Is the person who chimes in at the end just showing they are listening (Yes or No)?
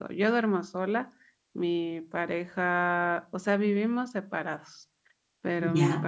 Yes